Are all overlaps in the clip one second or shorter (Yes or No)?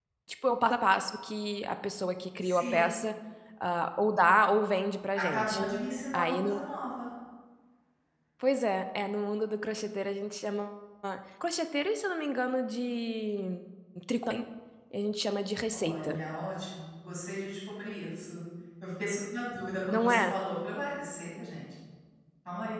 Yes